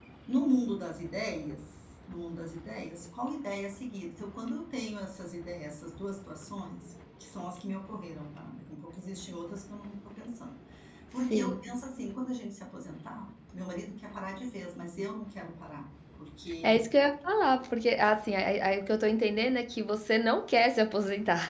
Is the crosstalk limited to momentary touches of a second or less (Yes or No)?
Yes